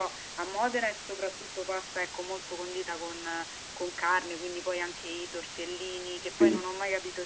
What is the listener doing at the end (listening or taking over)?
listening